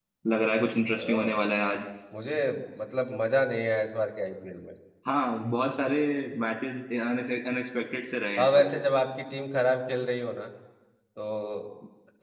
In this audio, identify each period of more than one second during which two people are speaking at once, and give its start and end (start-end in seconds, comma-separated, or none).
none